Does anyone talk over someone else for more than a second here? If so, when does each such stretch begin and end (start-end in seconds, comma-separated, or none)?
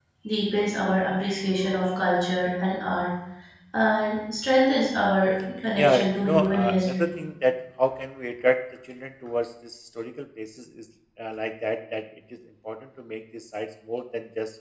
5.8-7.1